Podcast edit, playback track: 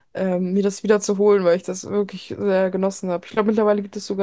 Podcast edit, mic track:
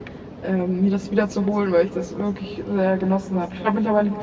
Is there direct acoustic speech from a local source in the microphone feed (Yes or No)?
No